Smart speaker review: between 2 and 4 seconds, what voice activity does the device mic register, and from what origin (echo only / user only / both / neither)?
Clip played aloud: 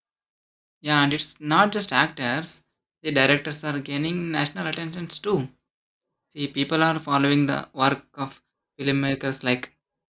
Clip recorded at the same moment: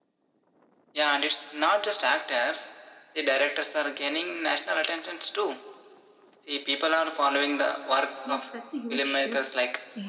echo only